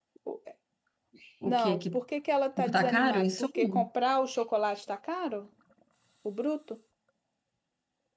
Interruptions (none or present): present